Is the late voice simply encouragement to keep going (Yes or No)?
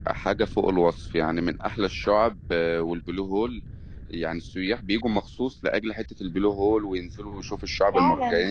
Yes